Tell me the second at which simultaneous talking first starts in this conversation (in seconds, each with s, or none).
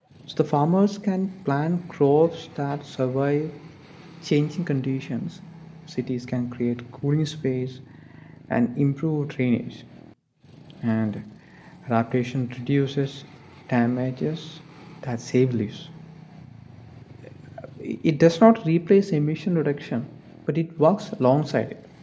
none